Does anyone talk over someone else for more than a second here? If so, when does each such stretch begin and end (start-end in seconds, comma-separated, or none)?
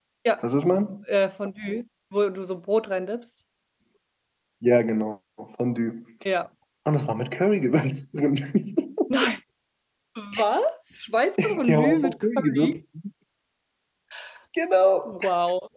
11.4-12.8